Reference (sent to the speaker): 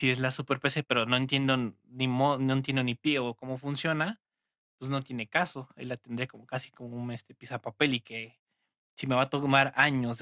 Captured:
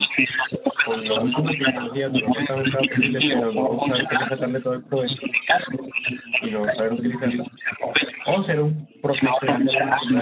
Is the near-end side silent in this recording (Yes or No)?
No